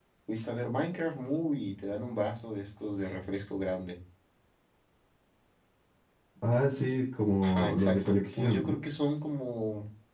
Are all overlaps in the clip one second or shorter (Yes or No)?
No